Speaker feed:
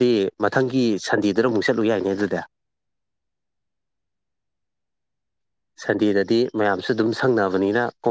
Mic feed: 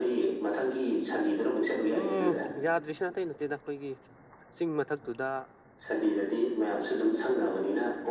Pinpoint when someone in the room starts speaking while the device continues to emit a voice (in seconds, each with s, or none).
2.0 s